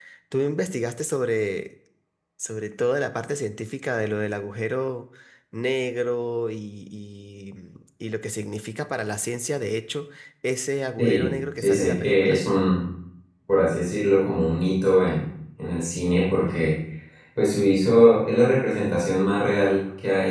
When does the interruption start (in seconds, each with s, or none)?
11.0 s